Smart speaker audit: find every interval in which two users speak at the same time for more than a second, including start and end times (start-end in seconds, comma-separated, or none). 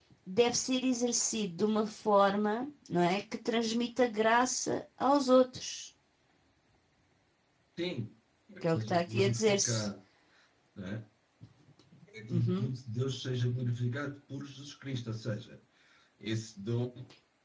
8.6-9.9